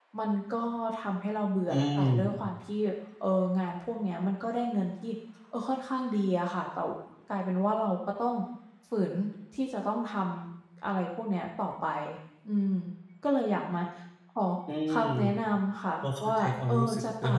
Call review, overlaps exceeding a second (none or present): present